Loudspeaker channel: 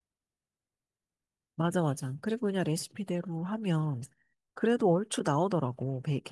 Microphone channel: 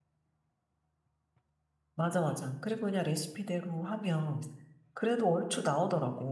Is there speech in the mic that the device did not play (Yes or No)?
No